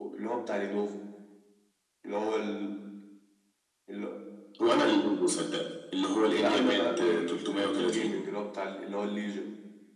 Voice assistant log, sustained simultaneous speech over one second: present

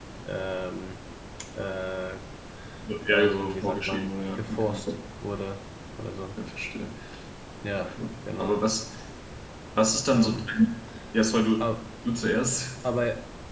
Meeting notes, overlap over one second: present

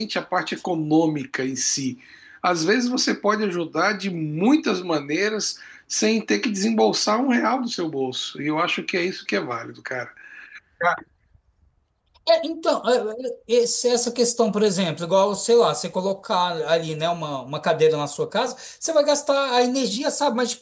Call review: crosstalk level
none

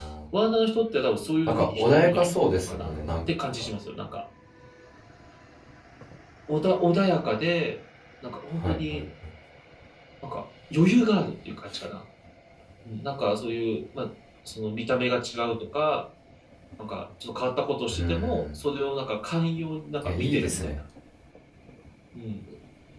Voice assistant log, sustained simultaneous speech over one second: present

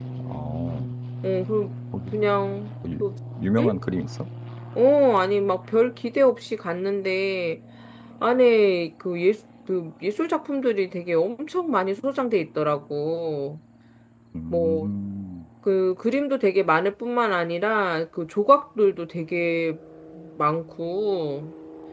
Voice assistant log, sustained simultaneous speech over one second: none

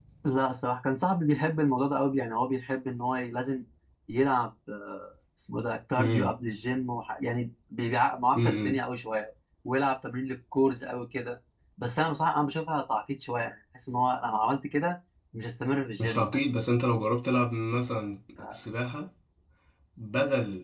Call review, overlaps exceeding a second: none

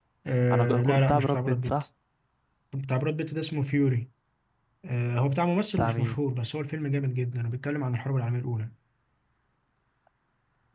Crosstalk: present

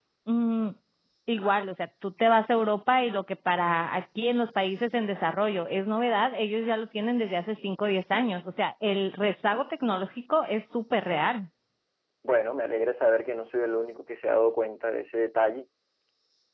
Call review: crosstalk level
none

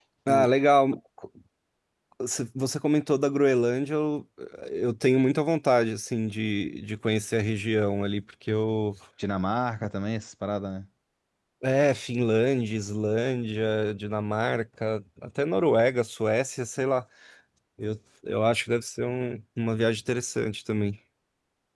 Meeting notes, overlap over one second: none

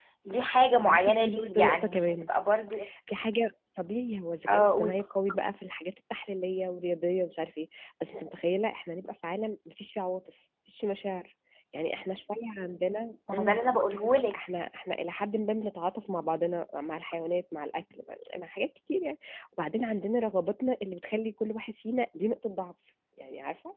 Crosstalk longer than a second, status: present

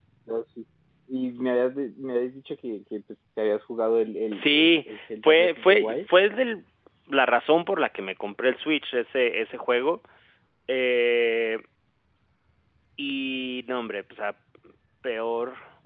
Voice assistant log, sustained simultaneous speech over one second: present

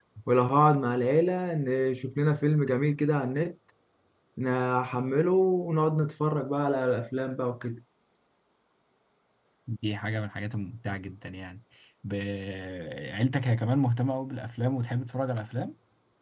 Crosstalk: none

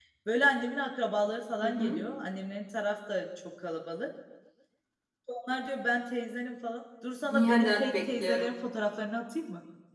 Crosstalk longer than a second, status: present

